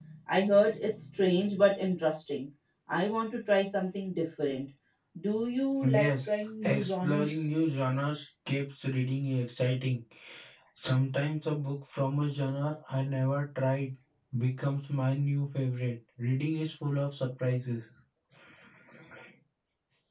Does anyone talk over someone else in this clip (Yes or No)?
Yes